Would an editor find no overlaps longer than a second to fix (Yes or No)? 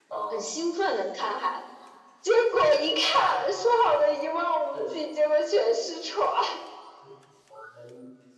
Yes